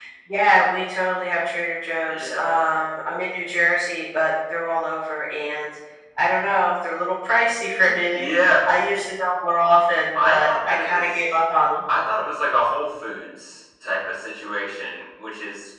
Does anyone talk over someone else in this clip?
Yes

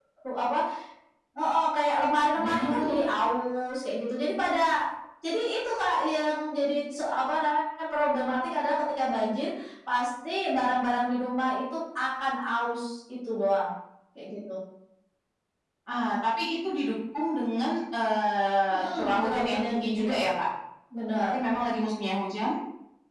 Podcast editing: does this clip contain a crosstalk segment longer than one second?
Yes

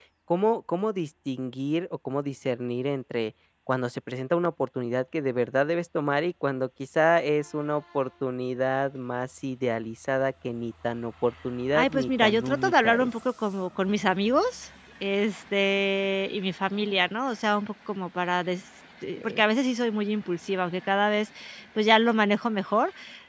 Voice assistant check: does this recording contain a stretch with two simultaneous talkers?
Yes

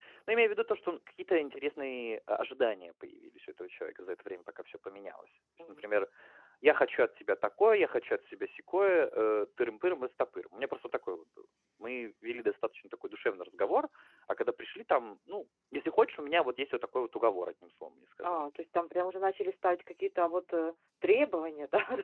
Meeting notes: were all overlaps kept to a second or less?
Yes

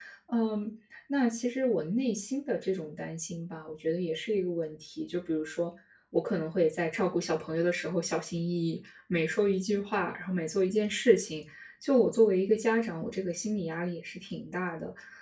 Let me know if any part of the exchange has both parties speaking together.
No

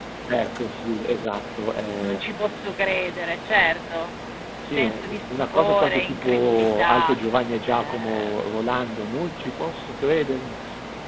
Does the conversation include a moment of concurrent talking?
Yes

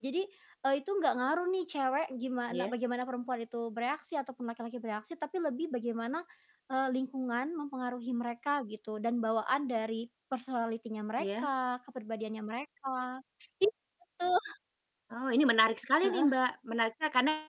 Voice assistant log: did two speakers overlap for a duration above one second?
No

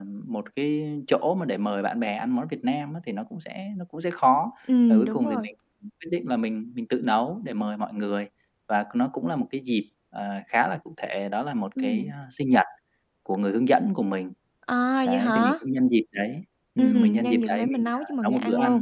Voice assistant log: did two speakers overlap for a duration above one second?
Yes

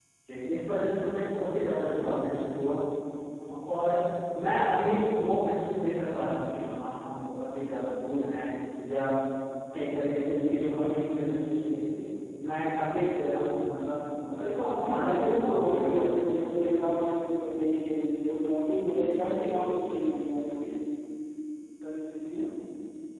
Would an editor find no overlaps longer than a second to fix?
No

